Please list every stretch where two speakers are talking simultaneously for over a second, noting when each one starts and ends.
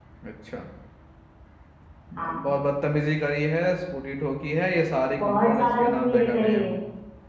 5.2-6.6

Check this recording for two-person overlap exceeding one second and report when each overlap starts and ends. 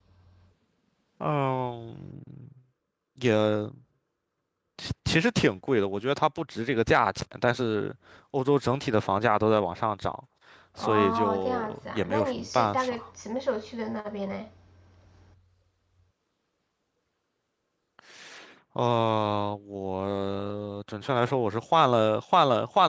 10.8-13.0

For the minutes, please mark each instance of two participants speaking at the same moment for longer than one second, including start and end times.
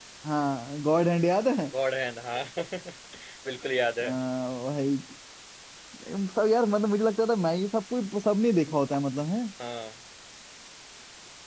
none

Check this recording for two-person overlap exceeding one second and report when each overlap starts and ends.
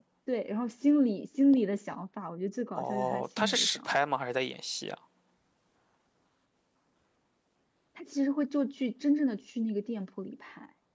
2.8-4.0

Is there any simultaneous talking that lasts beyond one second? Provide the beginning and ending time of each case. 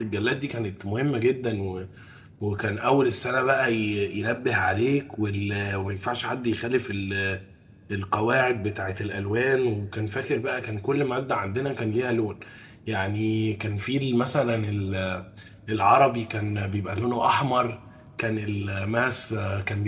none

